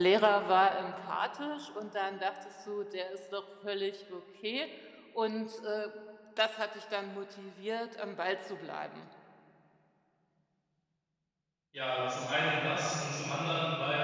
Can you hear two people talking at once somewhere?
No

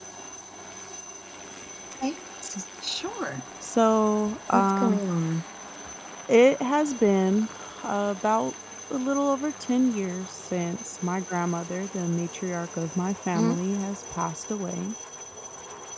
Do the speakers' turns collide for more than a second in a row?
No

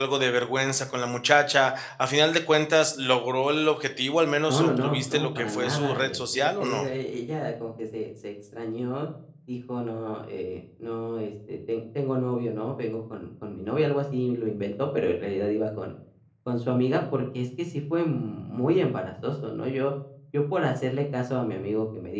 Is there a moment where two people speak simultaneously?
Yes, from 4.5 s

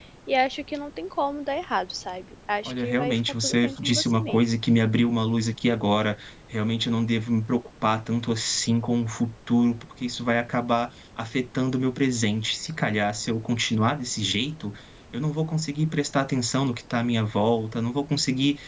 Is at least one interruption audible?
Yes, from 2.6 s

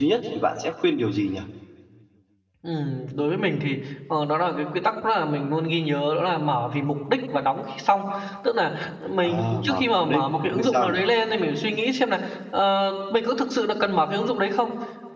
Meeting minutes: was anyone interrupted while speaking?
Yes, from 9.2 s

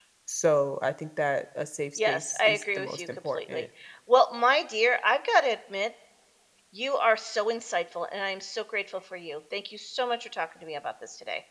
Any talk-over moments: Yes, from 2.0 s

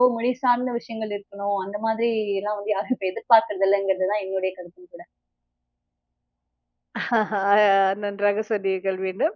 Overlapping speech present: No

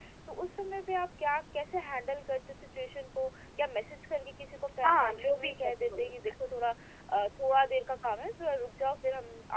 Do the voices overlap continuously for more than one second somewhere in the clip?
Yes, from 4.8 s

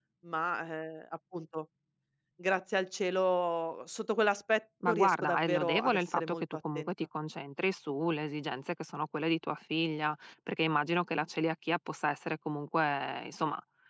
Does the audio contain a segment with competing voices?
Yes, from 4.8 s

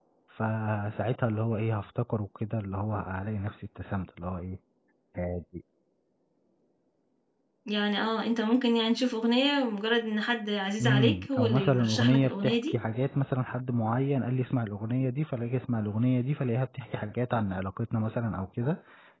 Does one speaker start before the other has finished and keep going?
Yes, from 10.8 s

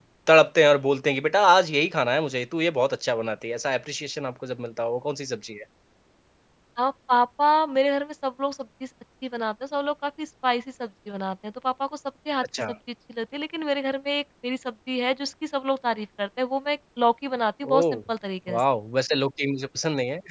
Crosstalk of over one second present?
No

